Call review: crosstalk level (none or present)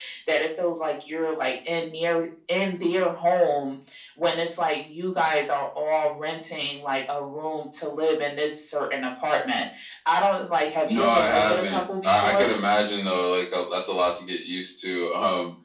present